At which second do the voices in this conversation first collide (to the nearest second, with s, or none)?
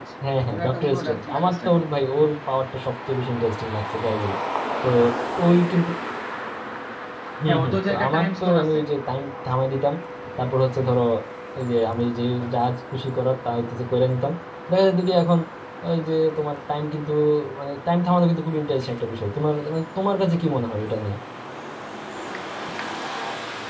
1 s